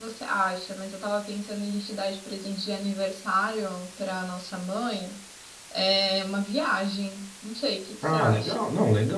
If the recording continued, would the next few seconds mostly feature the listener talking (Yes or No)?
Yes